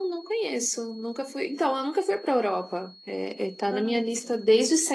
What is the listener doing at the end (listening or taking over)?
listening